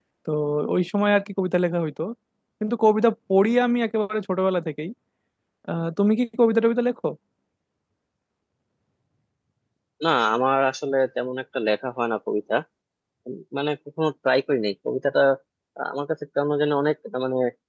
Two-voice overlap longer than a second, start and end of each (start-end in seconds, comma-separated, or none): none